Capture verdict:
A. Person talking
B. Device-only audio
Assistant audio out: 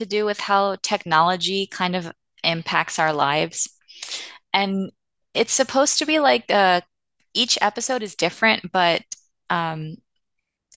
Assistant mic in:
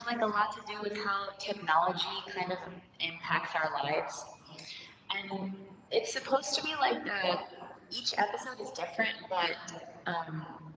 B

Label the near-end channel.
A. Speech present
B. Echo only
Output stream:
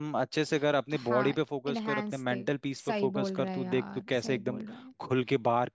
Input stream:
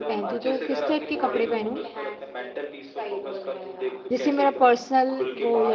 A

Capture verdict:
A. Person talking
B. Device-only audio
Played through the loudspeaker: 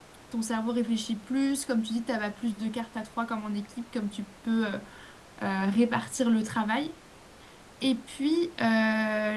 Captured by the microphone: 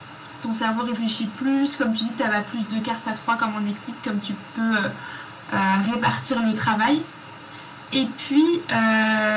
B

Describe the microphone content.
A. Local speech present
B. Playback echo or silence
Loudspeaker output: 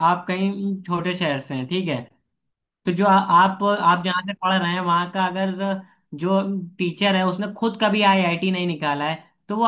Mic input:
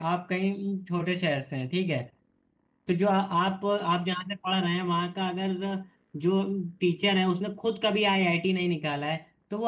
B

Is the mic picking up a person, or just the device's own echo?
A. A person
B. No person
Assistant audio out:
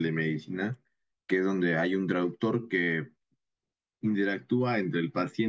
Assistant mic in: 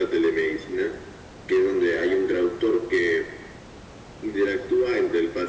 B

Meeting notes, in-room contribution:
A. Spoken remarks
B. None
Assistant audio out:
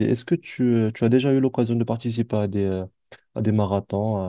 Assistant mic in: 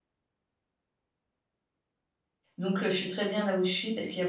A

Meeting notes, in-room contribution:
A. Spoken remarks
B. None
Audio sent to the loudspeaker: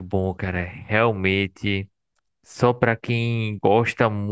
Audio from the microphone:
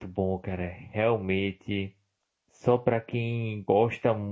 B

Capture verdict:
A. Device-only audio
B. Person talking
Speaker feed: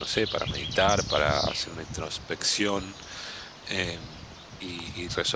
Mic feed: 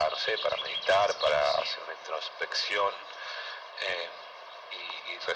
A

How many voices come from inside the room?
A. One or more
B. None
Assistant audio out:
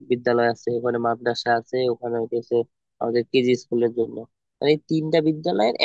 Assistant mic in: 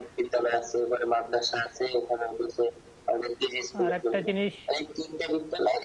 A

